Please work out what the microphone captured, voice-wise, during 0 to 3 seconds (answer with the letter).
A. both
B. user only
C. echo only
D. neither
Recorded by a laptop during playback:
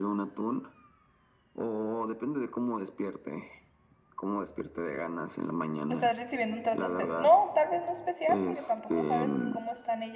C